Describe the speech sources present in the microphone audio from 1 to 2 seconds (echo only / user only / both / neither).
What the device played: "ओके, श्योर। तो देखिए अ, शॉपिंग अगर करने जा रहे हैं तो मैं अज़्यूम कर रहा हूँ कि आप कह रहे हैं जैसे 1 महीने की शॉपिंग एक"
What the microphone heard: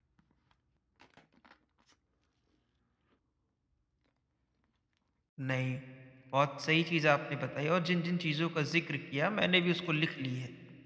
neither